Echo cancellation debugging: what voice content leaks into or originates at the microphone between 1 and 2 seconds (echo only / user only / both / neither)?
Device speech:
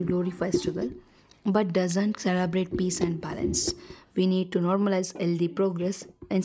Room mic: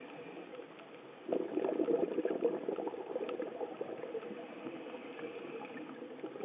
neither